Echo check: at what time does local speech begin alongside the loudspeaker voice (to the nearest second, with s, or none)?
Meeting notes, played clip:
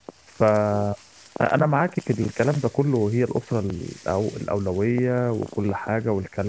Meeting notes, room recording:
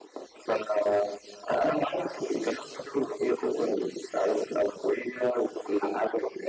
none